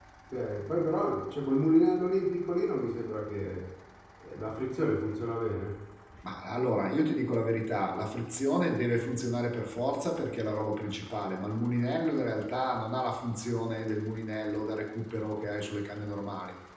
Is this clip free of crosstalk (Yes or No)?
Yes